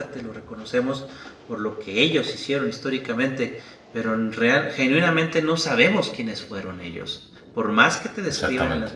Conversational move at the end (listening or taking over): listening